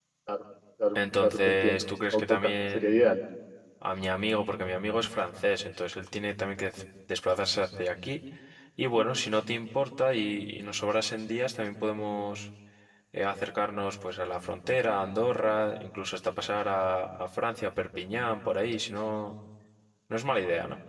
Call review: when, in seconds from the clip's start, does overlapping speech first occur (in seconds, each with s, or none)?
0.9 s